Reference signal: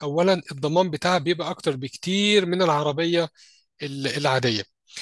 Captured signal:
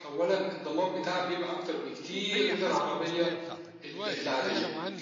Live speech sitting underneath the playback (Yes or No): Yes